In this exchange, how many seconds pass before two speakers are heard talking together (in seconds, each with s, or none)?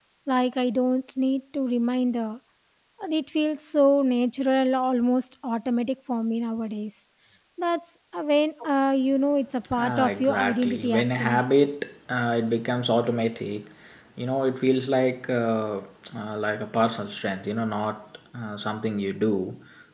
9.7 s